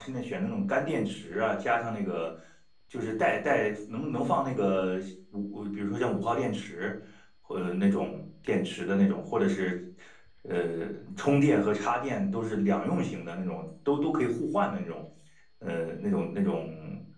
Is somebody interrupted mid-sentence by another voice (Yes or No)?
No